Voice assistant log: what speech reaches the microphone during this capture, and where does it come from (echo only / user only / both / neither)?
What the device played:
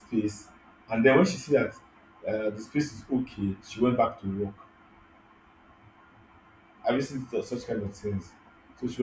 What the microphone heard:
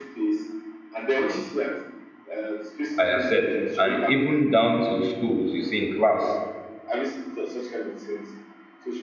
both